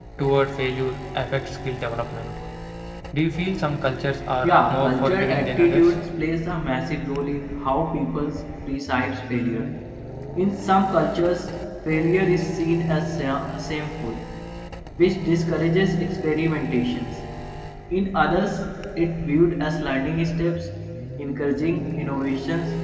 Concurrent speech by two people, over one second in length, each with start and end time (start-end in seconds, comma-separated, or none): 4.4-5.9